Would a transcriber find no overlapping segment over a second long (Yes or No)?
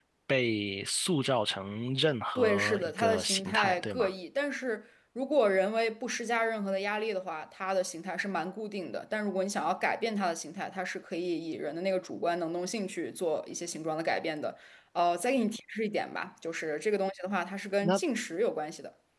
No